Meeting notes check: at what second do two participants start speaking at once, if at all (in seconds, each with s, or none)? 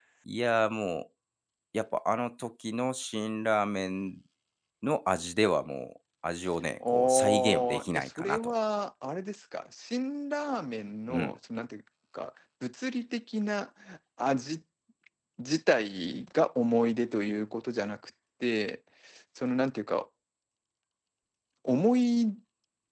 6.9 s